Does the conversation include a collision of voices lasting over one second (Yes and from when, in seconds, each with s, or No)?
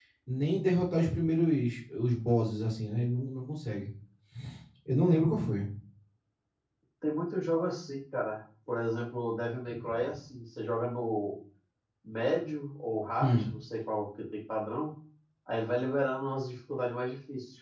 No